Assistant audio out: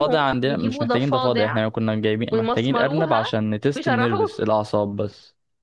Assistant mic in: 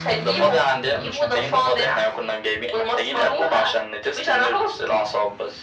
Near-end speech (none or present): none